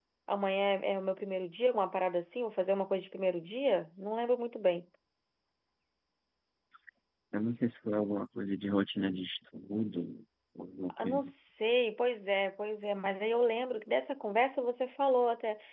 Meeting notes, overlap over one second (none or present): none